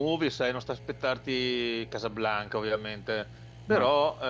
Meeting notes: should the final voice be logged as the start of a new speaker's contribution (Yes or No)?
No